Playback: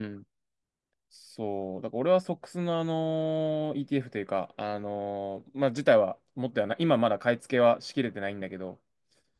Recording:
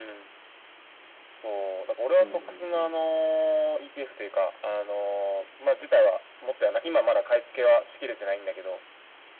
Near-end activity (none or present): present